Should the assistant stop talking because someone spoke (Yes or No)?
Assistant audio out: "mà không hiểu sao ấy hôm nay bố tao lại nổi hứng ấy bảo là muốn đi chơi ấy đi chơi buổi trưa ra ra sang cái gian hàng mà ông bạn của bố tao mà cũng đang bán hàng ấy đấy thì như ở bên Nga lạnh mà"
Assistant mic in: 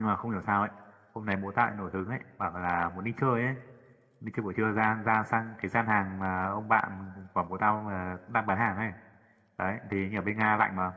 No